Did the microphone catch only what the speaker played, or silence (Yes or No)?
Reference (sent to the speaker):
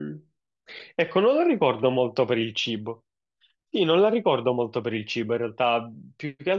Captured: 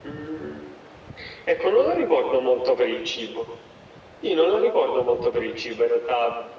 Yes